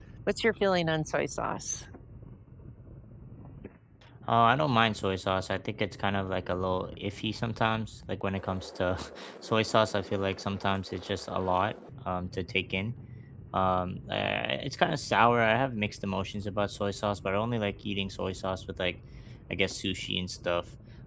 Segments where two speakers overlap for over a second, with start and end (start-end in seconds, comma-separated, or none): none